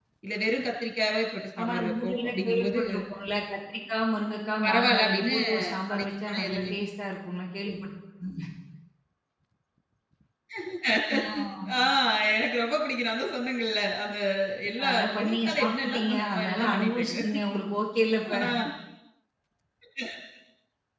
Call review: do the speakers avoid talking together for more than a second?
No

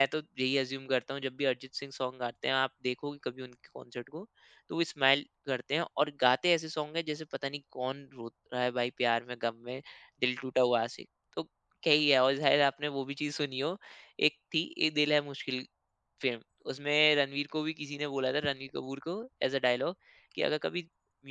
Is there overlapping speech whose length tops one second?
No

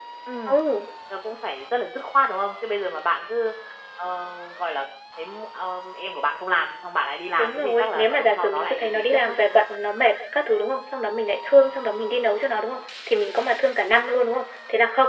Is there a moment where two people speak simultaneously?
Yes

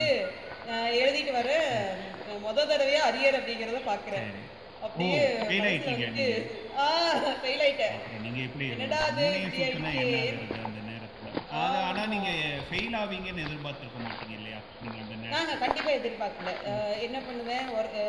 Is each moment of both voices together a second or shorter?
No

